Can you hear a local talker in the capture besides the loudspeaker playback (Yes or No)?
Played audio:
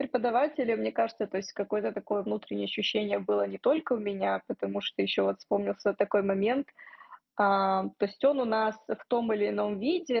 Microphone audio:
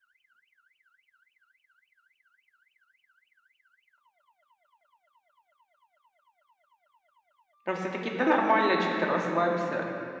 Yes